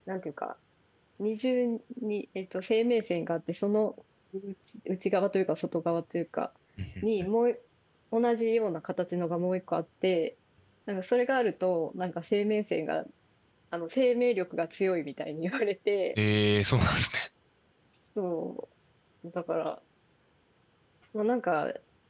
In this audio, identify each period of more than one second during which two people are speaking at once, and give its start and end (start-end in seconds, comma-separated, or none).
none